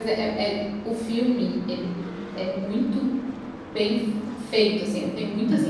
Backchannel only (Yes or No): Yes